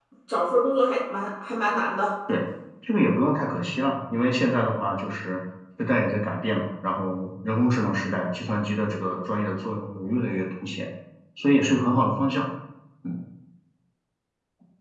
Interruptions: none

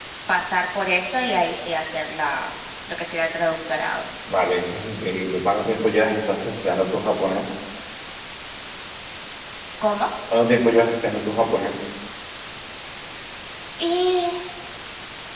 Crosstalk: none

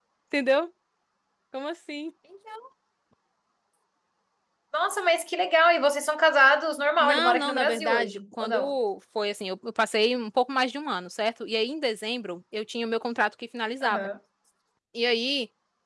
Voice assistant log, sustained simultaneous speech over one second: present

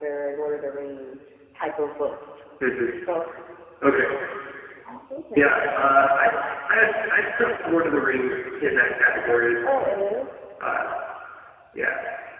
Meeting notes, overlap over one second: none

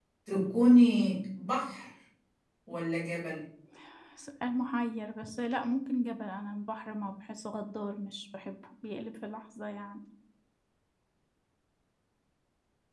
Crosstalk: none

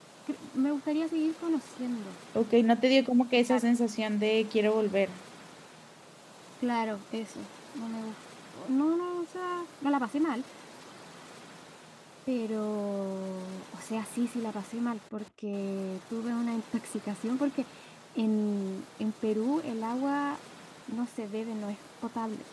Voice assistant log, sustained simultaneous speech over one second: none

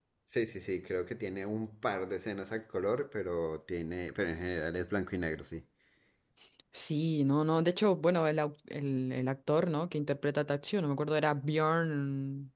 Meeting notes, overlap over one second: none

